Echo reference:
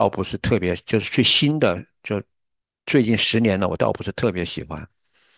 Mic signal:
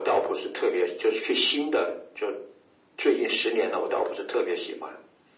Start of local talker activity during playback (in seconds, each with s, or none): none